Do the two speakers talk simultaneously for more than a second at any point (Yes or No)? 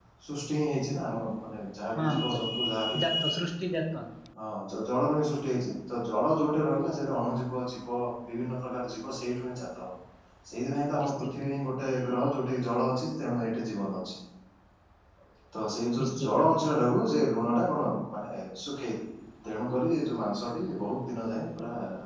No